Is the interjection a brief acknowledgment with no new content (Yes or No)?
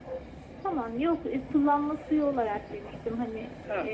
No